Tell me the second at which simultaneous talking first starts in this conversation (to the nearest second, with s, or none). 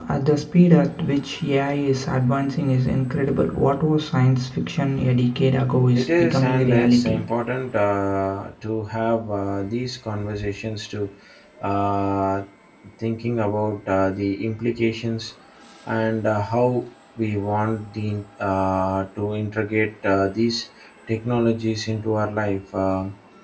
6 s